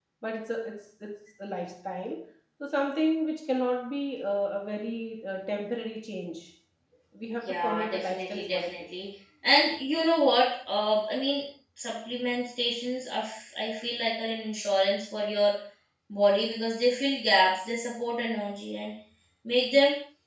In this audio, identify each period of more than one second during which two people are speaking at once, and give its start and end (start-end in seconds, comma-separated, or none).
7.4-8.8